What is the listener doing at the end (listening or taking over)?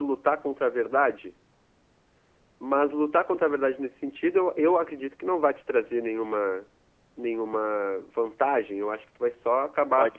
listening